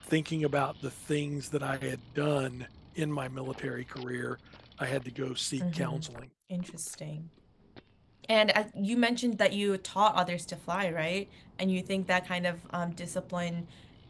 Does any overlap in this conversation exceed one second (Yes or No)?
No